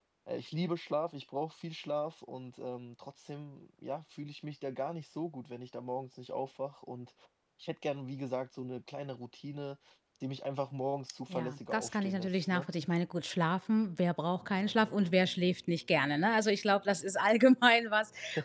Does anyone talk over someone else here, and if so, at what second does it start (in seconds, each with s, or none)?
11.3 s